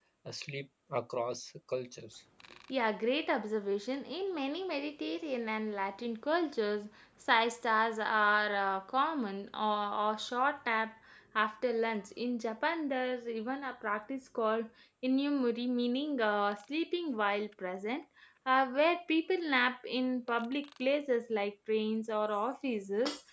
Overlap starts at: none

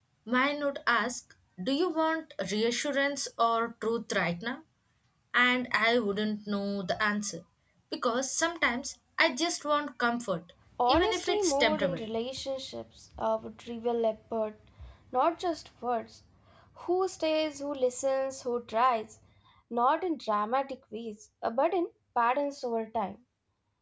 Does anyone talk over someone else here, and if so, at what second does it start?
10.8 s

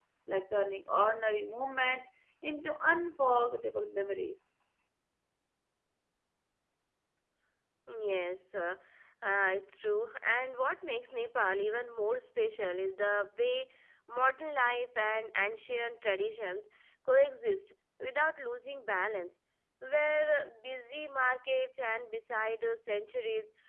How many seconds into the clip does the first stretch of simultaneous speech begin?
none

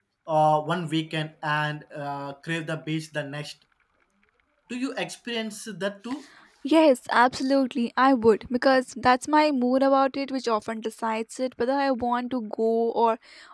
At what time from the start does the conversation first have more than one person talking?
none

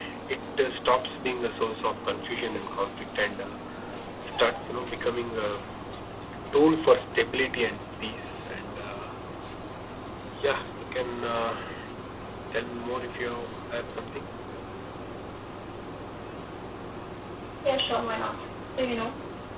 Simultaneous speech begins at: none

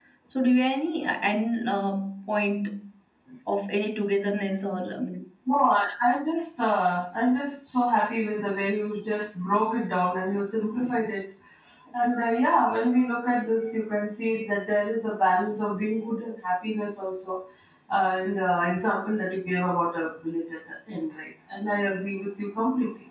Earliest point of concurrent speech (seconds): none

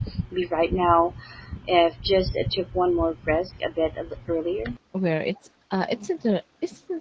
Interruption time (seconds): none

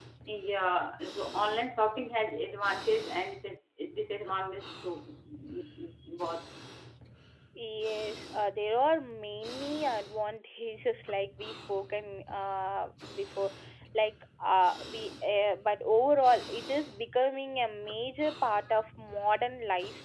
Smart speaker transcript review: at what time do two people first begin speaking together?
none

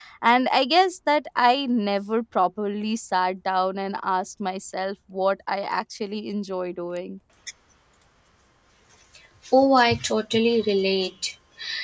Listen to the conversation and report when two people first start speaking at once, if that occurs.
none

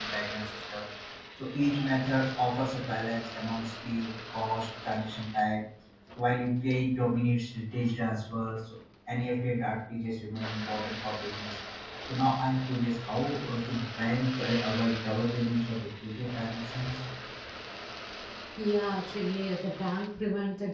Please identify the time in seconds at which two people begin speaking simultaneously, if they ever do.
none

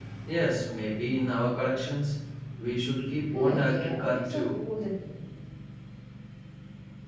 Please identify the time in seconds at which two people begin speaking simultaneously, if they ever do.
3.3 s

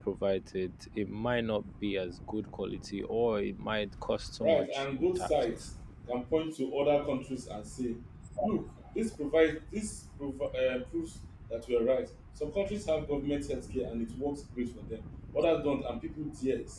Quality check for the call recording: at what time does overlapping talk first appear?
4.4 s

